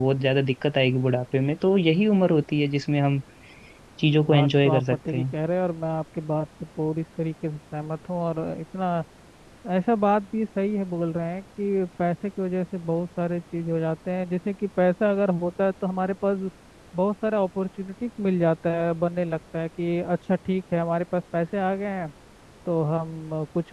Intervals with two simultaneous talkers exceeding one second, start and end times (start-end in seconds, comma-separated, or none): 4.0-5.2